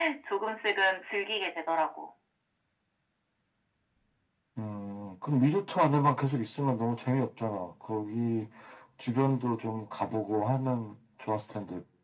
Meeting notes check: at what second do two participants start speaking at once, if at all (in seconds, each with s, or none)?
none